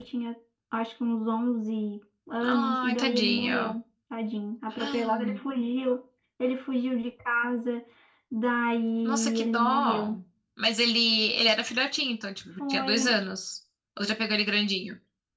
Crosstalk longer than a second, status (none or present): present